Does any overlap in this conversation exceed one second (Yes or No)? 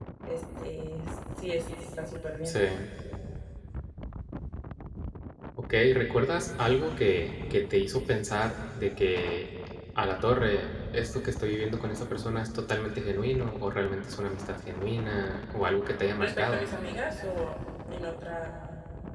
No